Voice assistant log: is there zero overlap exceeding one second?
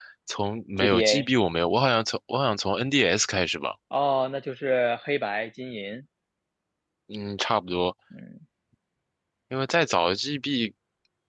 Yes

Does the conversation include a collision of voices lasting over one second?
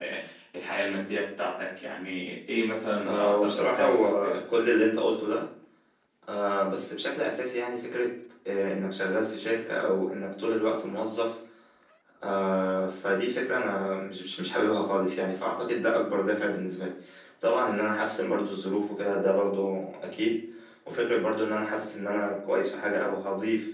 Yes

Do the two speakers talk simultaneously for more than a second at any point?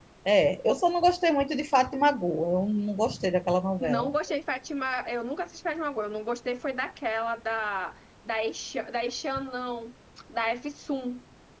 No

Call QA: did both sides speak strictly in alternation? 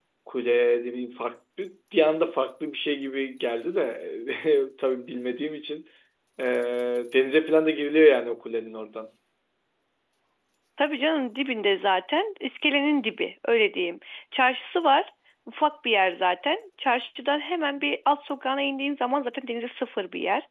Yes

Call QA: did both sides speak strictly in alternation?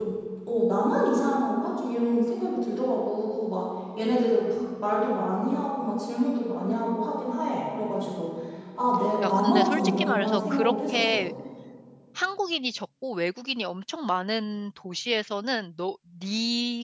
No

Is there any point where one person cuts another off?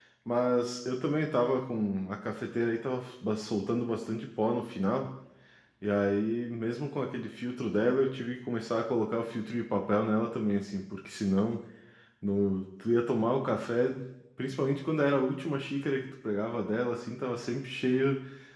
No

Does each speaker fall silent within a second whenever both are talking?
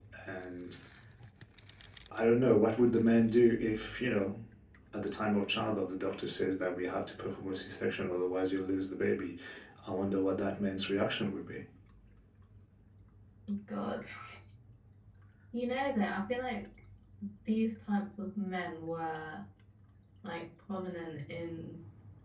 Yes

